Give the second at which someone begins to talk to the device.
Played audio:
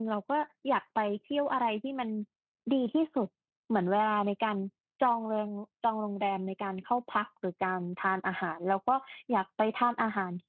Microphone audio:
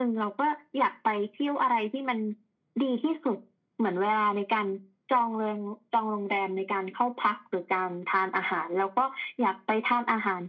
none

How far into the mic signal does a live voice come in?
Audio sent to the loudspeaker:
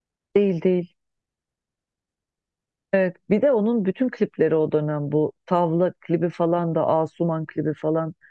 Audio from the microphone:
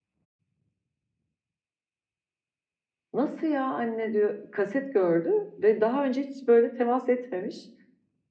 3 s

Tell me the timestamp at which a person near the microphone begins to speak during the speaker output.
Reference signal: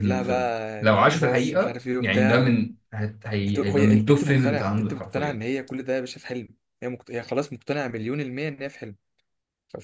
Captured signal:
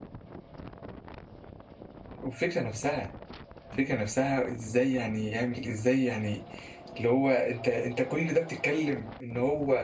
2 s

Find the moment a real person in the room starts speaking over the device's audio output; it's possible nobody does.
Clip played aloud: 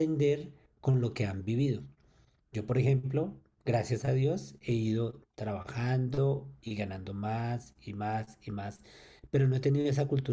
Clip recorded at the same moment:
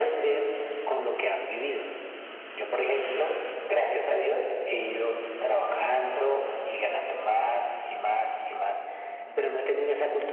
none

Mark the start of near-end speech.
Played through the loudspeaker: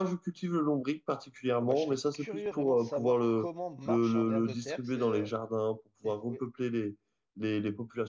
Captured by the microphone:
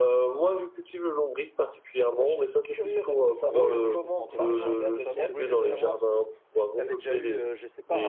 3 s

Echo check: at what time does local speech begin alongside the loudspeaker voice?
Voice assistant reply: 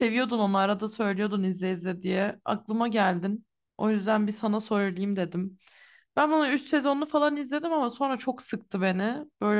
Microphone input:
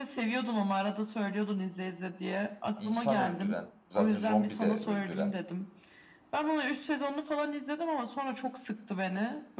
3 s

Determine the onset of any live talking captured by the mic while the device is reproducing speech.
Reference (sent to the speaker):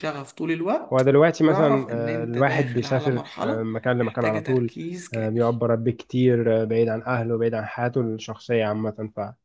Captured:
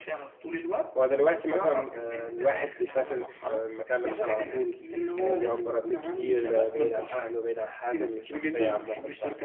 4 s

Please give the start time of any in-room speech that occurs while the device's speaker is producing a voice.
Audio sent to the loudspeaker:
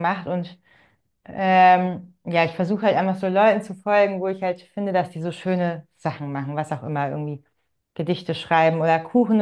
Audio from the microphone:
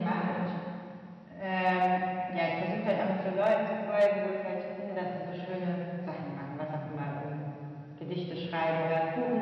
none

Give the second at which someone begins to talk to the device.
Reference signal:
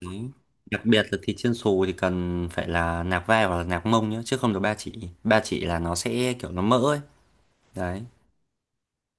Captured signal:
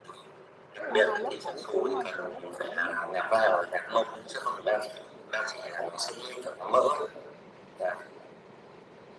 1 s

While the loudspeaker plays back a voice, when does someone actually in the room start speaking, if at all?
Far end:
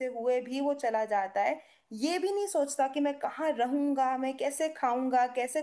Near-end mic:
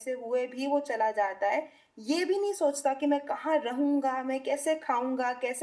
none

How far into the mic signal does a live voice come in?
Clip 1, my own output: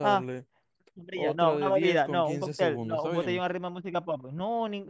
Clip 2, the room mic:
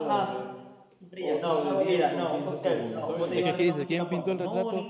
3 s

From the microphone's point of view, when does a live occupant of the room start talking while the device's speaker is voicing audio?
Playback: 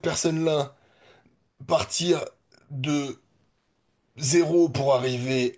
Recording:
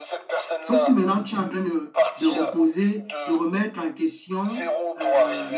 1 s

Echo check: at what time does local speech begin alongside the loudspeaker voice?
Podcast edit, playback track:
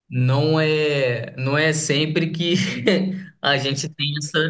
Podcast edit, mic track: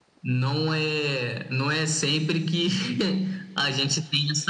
none

